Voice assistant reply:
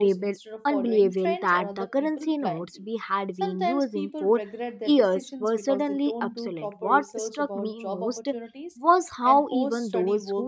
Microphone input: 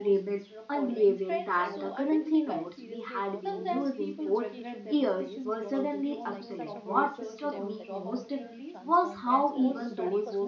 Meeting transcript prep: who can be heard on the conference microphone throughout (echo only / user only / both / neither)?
both